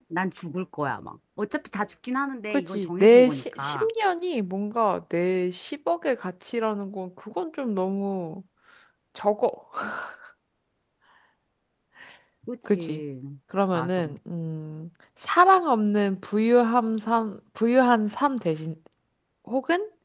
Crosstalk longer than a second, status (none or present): present